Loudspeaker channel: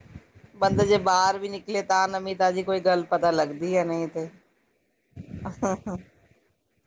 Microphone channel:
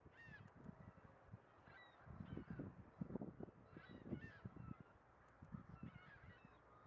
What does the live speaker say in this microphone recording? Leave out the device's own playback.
none

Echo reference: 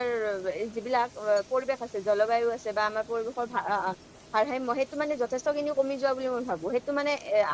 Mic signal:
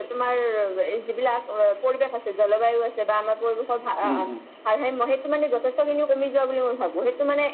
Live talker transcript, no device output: উম উম

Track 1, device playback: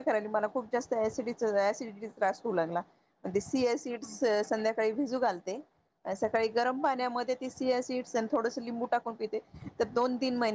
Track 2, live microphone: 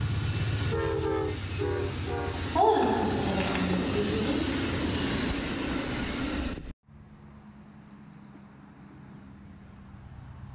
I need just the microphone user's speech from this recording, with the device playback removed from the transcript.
हो झालं, बस आ चच पी,

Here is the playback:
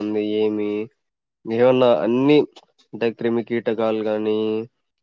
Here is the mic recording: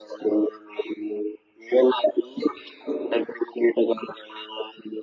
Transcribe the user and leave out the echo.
none

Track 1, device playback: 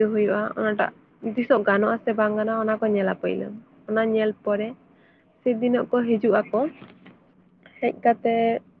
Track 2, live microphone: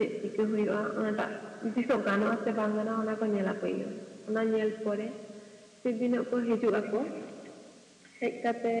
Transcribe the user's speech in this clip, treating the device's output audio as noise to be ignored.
none

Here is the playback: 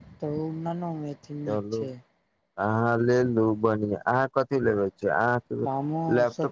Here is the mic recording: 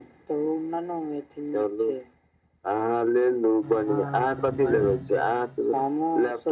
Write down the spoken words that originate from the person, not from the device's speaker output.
हँ बढिया से रहै छै

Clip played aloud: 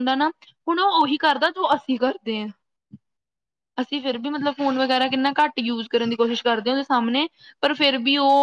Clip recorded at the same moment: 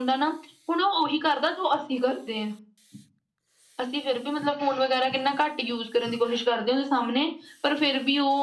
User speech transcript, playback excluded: none

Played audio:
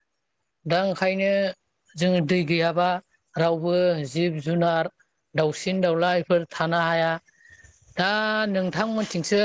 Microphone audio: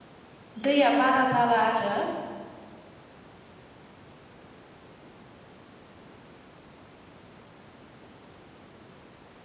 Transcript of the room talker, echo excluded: दैया बारा जाला आरो

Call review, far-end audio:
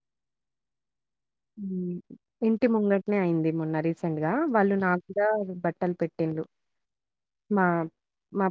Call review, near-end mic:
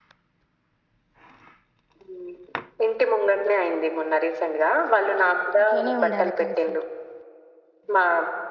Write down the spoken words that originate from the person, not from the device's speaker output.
అట్లనే ఉండాలె కలిసి

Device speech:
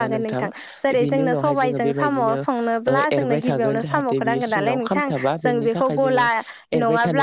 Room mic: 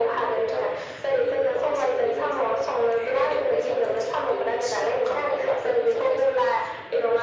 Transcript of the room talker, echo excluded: none

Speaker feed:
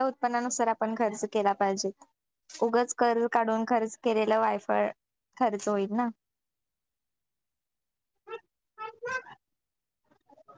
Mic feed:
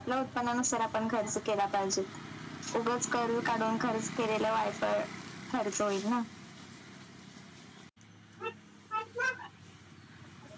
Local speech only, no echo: none

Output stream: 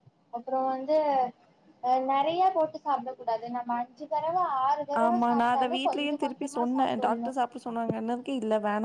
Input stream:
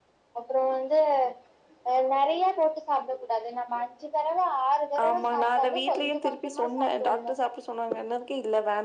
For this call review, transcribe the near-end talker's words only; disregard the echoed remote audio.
none

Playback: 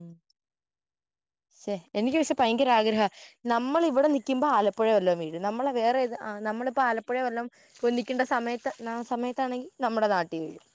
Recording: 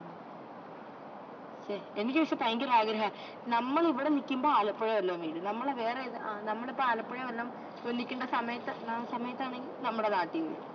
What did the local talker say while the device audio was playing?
none

